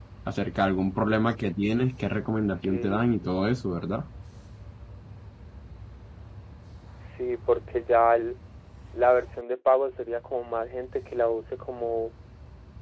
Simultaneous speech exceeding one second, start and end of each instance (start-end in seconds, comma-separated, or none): none